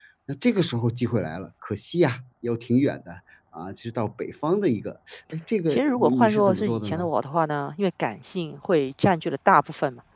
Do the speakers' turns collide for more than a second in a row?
Yes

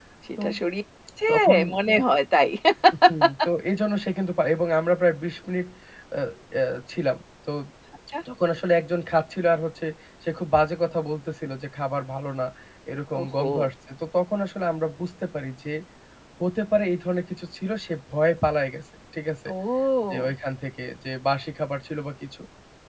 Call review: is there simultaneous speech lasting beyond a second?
No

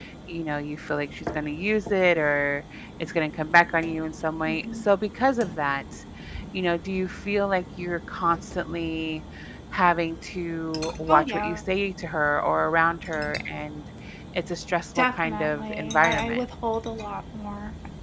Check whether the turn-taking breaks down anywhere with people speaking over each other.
Yes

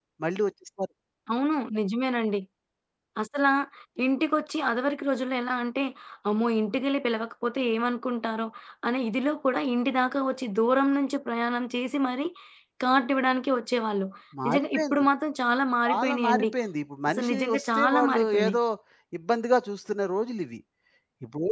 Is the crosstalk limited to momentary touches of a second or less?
No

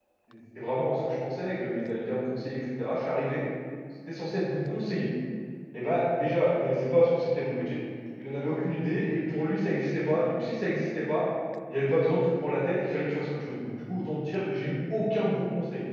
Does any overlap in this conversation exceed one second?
No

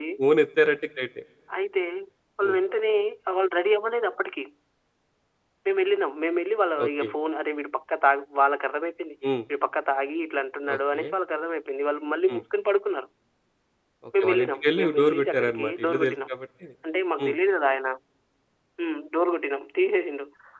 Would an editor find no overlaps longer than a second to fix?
No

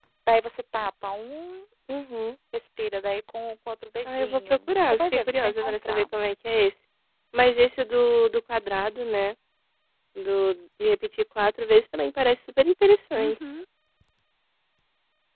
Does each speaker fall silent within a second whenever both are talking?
No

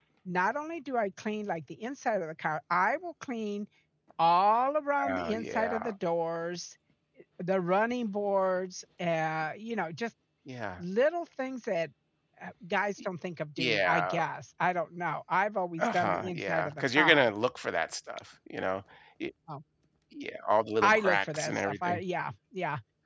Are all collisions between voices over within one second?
No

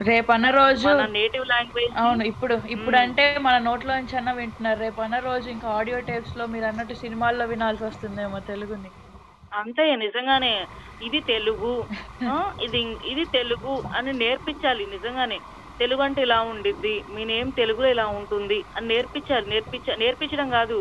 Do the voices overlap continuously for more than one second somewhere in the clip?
No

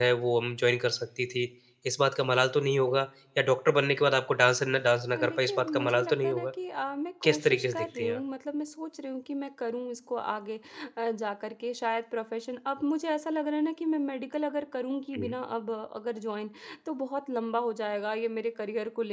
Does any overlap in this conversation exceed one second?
Yes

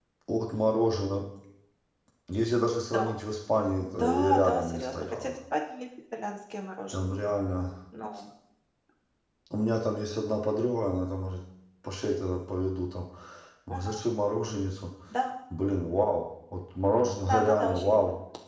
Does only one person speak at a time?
No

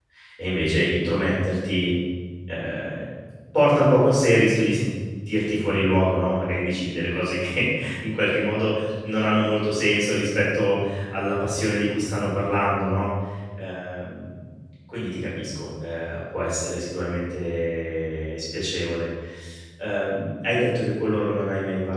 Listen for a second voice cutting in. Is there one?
No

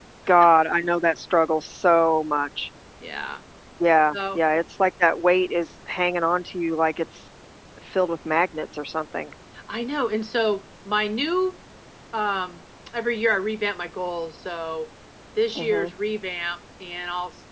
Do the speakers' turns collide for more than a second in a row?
No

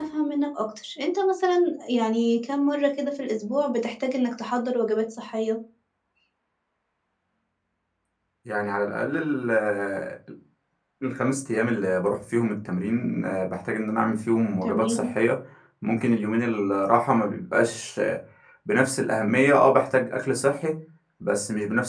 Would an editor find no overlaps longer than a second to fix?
Yes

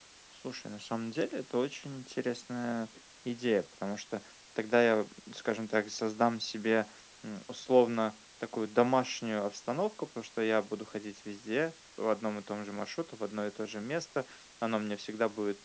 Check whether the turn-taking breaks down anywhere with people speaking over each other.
No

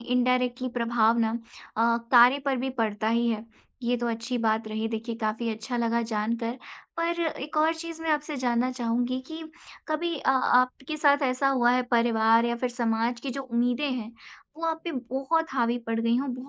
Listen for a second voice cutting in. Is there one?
No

